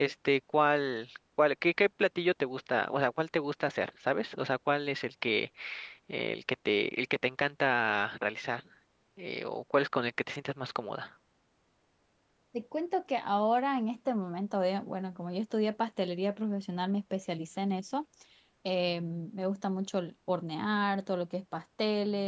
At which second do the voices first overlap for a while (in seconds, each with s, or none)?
none